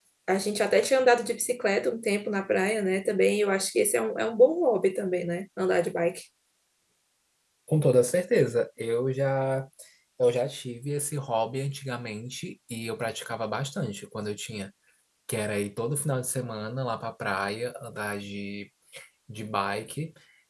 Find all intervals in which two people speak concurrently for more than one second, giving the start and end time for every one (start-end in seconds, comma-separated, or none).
none